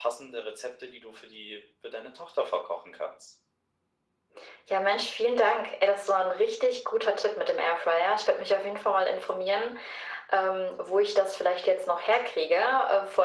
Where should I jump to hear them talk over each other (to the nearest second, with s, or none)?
none